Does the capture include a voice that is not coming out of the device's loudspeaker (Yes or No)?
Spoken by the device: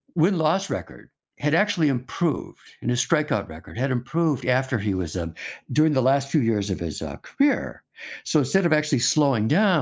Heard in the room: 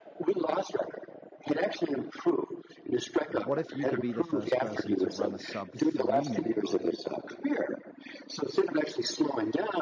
Yes